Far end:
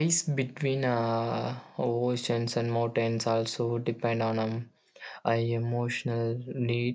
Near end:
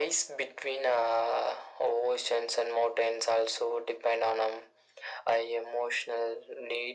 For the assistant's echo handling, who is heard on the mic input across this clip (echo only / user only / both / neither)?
echo only